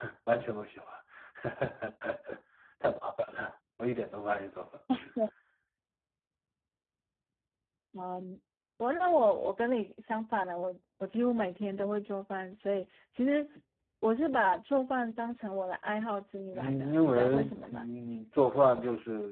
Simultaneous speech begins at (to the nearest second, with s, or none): 17 s